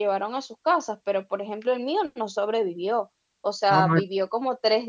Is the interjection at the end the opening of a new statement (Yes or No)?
No